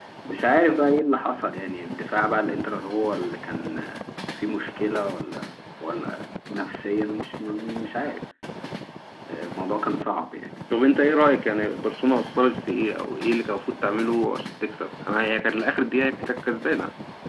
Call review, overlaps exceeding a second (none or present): none